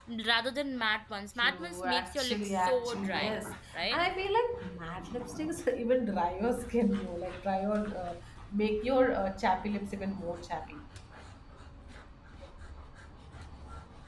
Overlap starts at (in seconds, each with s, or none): 1.4 s